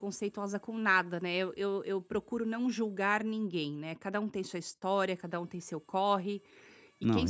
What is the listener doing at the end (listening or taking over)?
listening